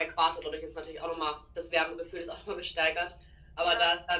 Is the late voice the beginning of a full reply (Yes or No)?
No